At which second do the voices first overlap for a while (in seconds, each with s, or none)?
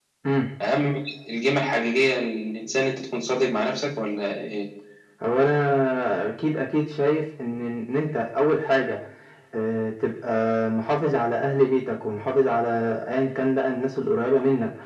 none